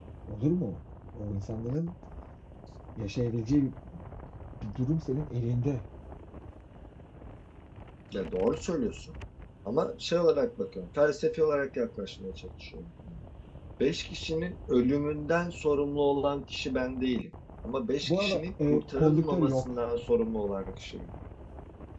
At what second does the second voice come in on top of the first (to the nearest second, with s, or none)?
18 s